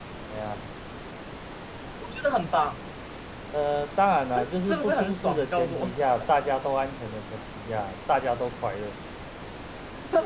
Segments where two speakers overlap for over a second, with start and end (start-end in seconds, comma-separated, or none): 4.6-5.9